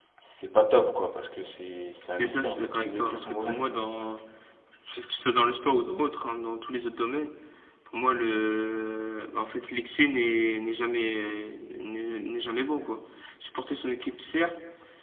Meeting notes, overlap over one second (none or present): present